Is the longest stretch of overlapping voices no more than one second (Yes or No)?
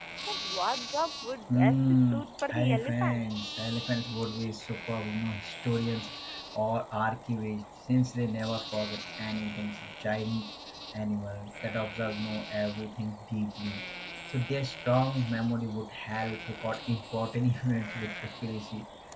No